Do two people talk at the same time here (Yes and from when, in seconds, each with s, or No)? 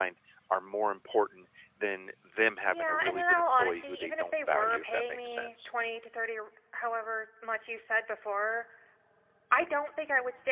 Yes, from 2.7 s